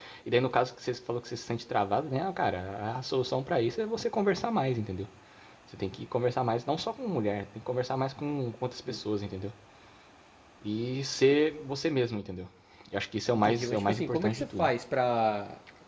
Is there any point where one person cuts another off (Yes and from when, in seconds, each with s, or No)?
Yes, from 13.3 s